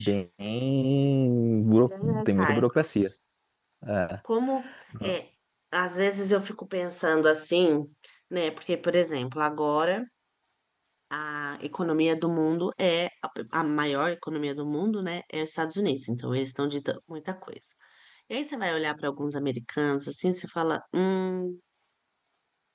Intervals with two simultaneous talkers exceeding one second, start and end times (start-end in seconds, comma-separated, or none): 1.9-3.1